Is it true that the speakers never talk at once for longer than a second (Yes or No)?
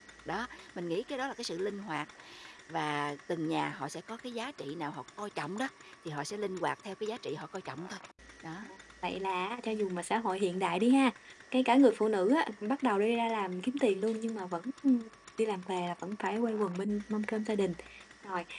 Yes